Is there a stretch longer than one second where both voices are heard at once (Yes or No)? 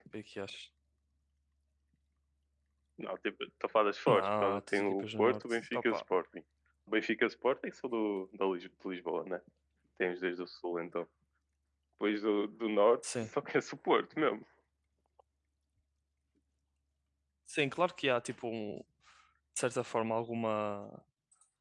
Yes